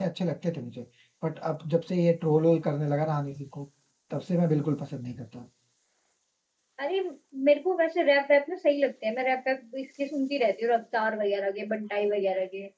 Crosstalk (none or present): none